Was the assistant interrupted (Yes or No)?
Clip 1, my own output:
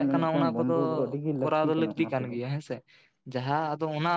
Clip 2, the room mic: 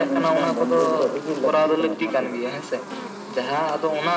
No